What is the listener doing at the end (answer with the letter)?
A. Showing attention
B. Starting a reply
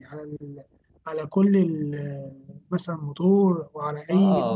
B